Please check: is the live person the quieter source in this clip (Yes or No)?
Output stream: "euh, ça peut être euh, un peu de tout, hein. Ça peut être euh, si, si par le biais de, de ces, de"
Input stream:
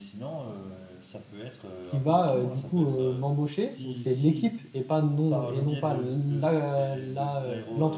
No